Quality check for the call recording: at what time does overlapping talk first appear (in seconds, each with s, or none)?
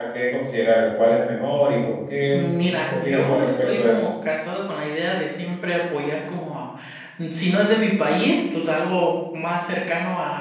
2.3 s